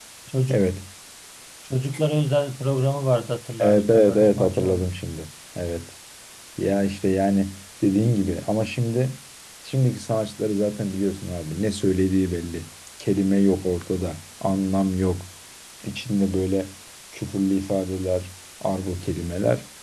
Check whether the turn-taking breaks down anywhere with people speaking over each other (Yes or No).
Yes